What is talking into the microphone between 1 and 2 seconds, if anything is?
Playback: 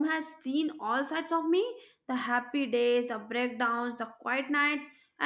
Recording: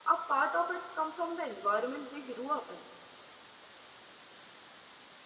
user only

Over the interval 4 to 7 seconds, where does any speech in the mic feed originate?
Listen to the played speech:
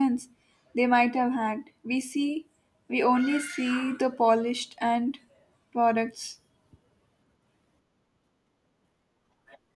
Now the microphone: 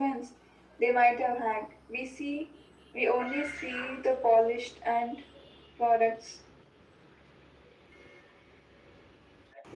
echo only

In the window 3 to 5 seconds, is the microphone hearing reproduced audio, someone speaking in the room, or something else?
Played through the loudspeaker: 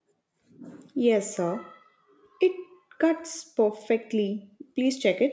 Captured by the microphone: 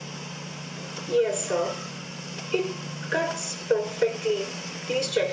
echo only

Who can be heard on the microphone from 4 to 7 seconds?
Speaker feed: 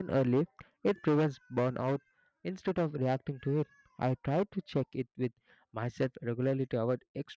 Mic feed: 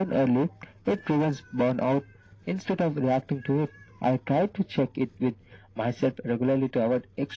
echo only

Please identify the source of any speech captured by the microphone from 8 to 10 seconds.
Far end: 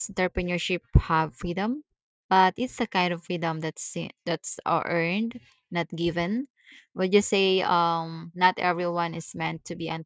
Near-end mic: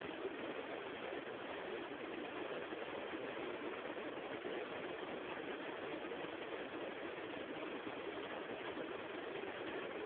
neither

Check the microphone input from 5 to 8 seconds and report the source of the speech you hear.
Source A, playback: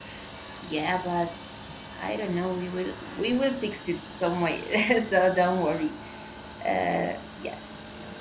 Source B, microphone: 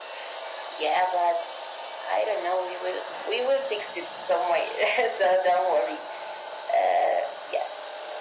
echo only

